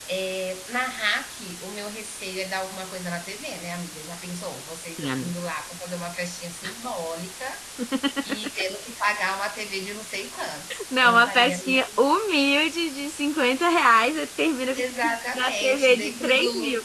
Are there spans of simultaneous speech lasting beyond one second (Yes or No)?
Yes